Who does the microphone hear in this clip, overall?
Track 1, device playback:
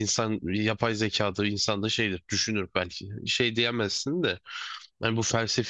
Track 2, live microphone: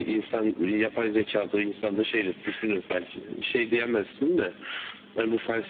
echo only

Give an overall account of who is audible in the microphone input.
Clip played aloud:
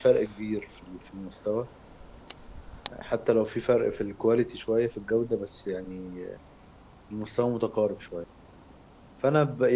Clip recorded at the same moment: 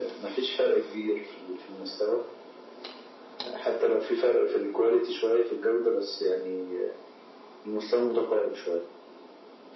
echo only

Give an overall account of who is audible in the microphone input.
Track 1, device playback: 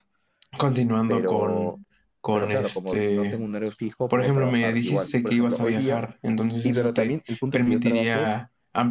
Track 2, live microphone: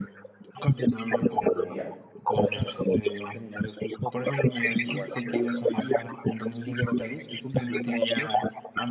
both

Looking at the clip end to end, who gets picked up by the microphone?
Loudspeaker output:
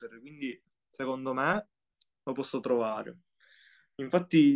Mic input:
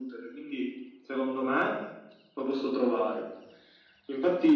echo only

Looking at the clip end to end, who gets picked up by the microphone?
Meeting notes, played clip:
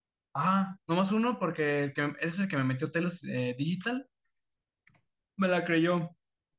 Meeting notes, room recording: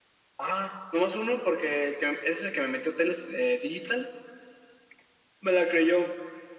echo only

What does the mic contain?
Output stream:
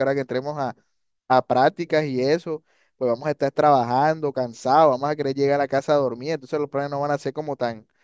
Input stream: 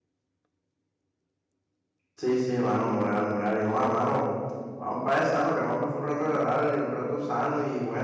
user only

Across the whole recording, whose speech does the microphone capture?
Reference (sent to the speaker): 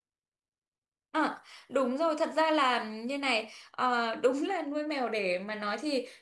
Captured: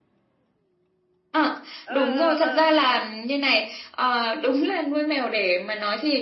both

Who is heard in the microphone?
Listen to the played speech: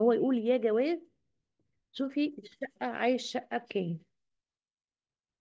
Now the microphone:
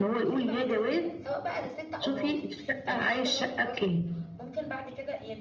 both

